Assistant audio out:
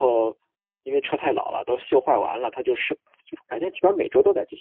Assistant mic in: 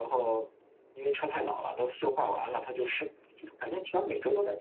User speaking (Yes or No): No